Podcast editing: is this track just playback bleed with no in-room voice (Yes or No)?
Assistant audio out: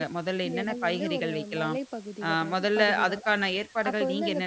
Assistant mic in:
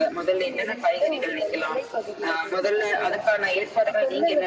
Yes